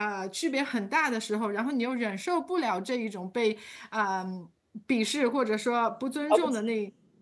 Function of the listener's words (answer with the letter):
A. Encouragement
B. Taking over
A